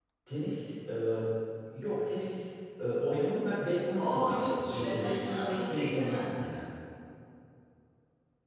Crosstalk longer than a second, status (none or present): present